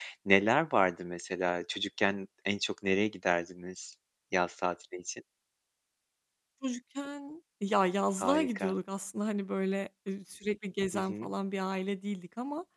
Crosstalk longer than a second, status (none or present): none